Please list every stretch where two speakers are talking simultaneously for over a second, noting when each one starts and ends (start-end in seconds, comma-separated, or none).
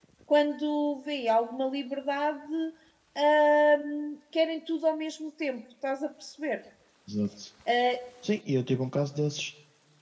none